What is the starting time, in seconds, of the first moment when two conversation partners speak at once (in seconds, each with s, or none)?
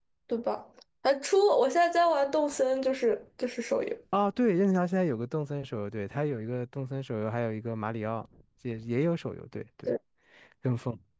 none